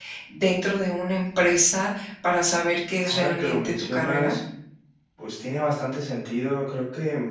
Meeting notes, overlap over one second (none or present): present